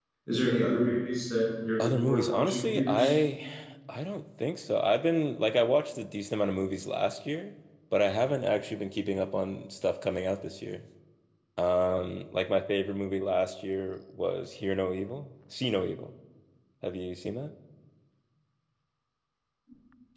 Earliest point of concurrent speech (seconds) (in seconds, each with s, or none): 1.8 s